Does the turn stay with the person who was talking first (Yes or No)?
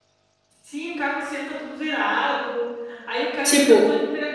Yes